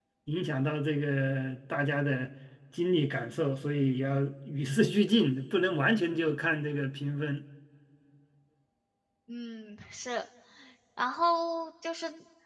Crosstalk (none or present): none